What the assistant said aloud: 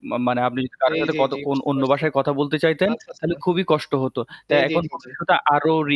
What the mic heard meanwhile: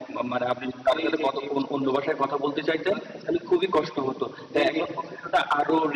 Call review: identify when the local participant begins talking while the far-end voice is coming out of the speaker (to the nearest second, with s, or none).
none